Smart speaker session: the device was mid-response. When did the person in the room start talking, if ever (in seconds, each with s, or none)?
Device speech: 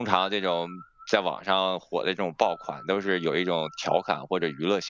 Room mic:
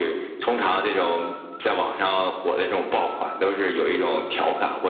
none